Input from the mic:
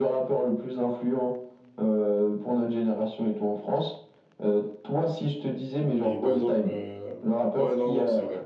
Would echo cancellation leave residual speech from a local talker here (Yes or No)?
Yes